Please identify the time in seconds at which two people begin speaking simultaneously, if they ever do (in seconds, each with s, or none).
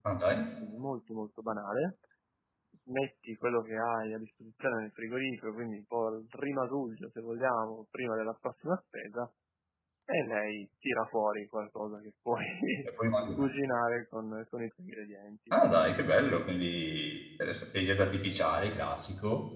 none